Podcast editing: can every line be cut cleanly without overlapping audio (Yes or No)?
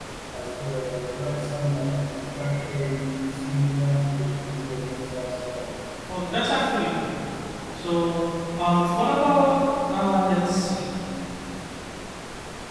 Yes